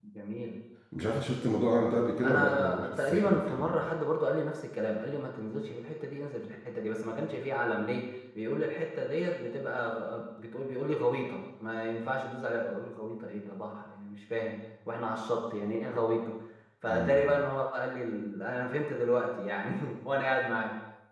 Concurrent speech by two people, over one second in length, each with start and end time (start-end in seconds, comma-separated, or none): 2.2-3.7